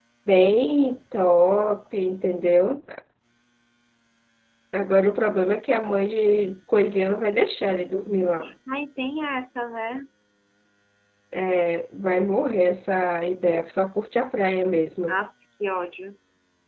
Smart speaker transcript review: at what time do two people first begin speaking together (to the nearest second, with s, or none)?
none